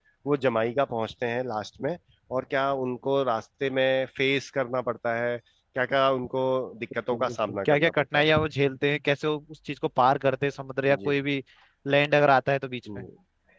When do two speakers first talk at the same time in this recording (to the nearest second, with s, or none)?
7 s